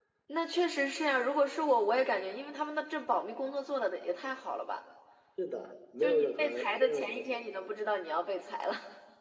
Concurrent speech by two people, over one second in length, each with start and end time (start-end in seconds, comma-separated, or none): 6.0-7.5